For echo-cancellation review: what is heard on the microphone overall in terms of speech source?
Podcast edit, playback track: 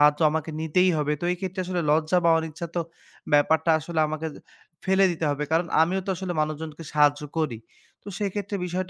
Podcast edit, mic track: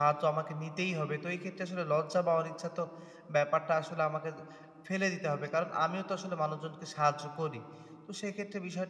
echo only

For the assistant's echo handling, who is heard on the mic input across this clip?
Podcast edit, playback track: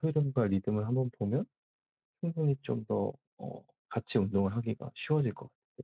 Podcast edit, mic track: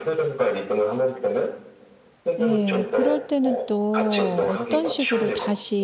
both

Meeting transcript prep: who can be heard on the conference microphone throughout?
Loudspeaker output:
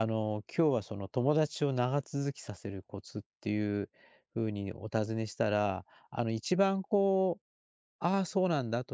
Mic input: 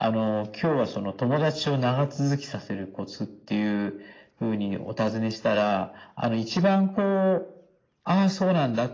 echo only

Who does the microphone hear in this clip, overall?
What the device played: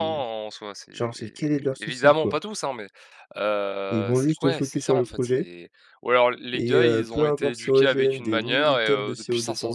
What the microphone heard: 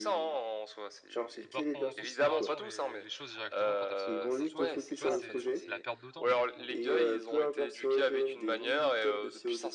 both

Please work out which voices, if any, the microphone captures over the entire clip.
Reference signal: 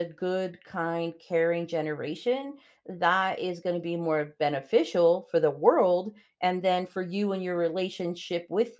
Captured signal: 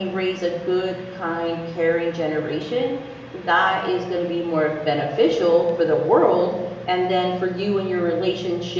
echo only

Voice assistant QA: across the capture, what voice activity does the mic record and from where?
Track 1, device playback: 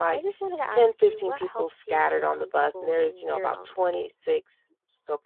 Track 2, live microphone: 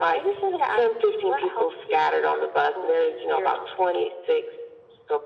echo only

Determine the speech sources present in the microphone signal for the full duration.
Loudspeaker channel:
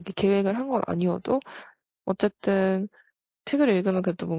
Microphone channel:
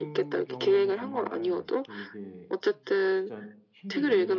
both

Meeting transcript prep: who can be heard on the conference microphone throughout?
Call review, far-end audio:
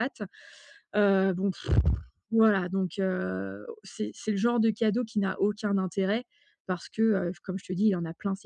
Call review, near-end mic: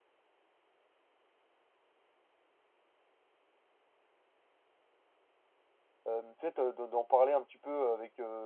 user only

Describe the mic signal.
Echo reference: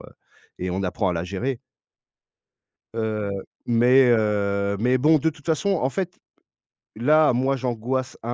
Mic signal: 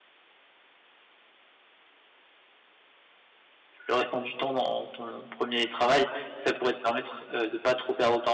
user only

